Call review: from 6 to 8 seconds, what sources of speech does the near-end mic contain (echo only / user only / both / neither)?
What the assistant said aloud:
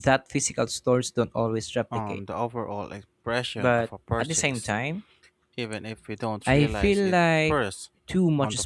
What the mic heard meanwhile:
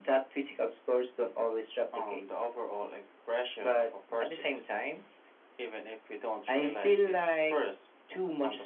echo only